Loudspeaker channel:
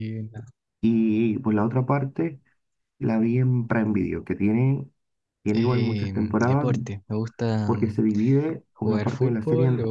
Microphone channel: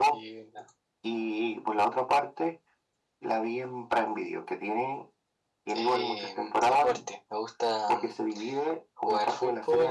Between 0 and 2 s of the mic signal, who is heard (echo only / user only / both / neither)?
echo only